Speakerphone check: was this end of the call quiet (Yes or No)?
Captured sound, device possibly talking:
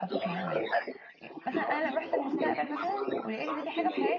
No